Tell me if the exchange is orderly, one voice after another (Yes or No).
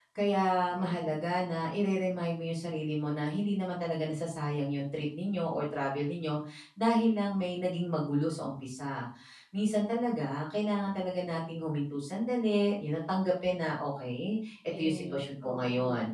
No